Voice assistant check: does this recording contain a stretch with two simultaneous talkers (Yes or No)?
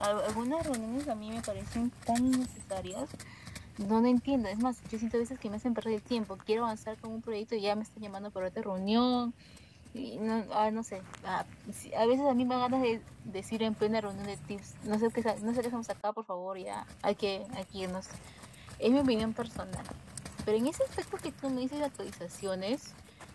No